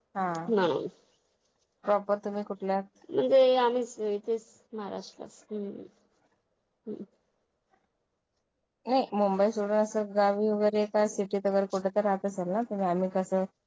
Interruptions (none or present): none